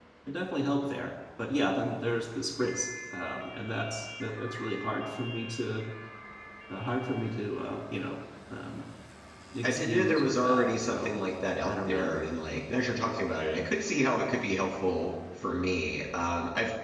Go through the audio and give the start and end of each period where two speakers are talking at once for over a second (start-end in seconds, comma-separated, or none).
9.6-11.1